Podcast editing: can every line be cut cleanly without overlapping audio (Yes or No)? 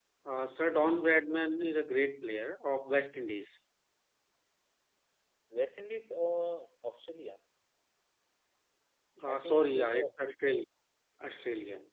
No